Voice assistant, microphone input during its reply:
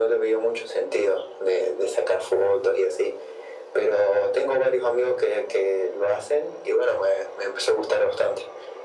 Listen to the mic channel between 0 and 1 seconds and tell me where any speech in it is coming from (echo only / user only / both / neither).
echo only